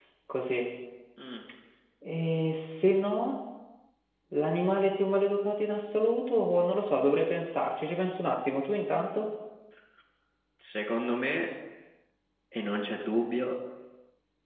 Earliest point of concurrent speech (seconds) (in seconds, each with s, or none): none